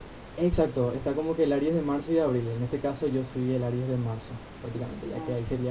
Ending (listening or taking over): listening